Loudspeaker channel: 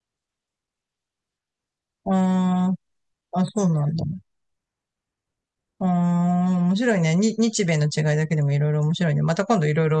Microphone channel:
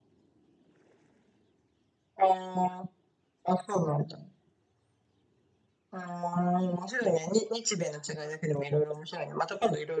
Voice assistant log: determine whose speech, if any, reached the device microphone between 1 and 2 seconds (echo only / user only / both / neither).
neither